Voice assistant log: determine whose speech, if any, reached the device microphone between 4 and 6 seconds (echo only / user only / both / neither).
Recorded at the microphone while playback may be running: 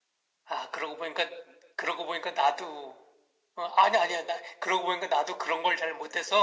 echo only